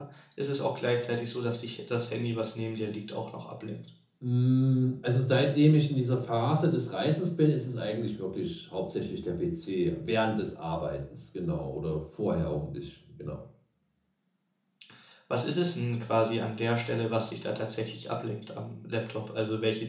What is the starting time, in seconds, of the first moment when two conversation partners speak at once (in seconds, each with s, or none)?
none